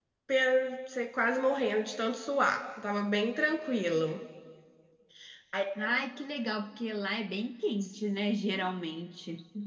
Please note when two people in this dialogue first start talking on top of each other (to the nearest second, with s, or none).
none